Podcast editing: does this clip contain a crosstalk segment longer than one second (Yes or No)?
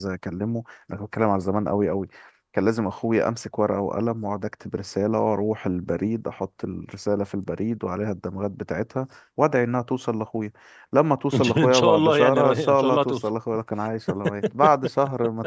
Yes